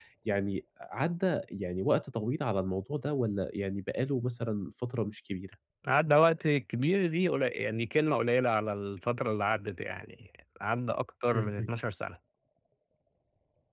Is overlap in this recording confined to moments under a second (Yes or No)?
Yes